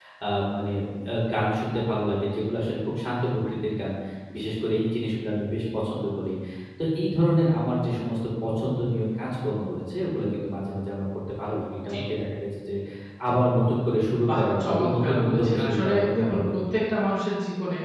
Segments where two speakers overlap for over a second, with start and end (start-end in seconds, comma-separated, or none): 14.4-16.9